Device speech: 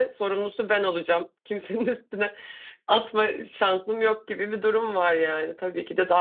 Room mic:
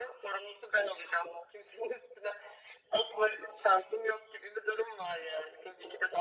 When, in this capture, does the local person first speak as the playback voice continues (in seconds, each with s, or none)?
none